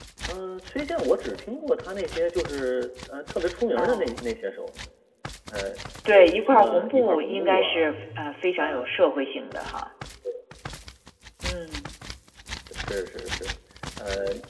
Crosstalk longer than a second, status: present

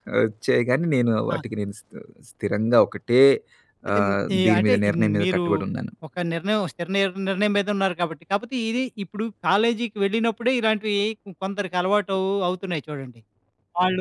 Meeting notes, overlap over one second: present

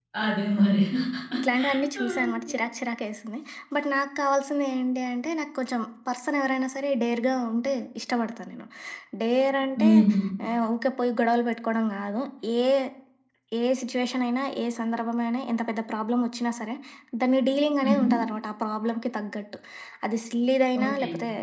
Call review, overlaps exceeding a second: none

